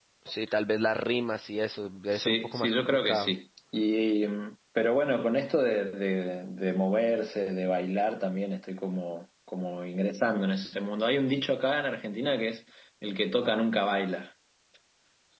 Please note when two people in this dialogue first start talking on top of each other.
2.1 s

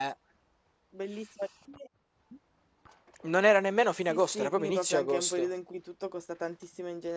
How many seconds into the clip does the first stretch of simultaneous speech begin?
4.1 s

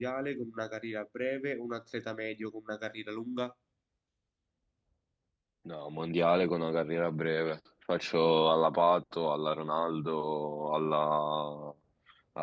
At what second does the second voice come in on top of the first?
none

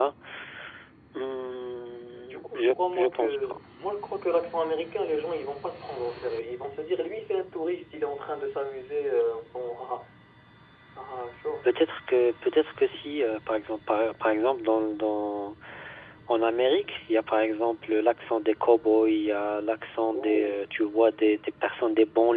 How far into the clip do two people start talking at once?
2.1 s

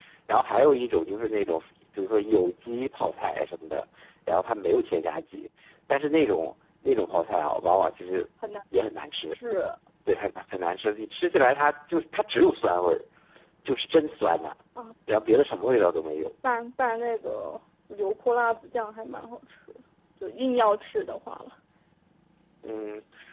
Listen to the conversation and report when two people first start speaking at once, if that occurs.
none

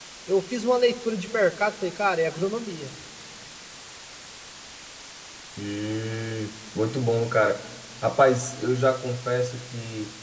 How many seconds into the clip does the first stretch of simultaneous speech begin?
none

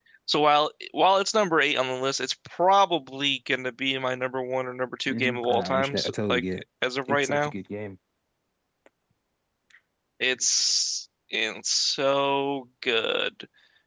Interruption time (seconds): 5.1 s

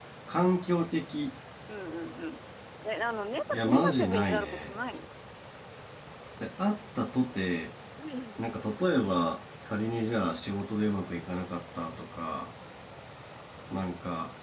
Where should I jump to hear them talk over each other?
3.5 s

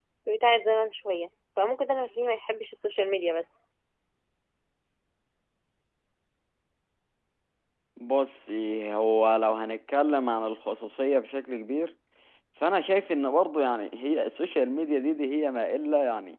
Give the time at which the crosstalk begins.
none

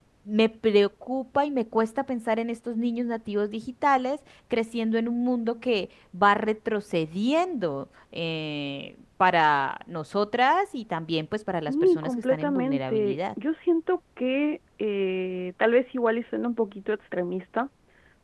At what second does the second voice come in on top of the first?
11.7 s

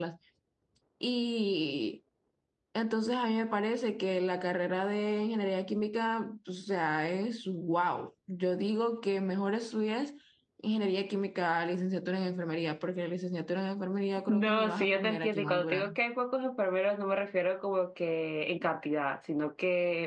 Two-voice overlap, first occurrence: 14.3 s

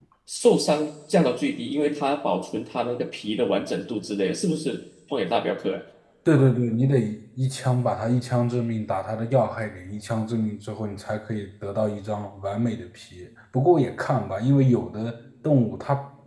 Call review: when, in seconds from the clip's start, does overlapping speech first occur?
none

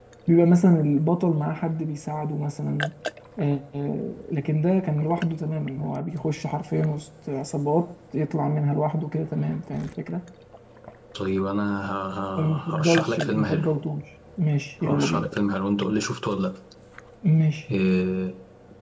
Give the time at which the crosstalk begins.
12.4 s

